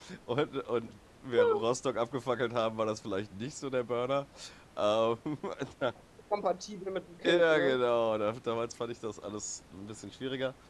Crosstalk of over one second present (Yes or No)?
No